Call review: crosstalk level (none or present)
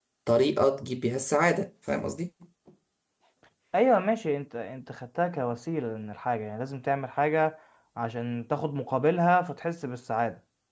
none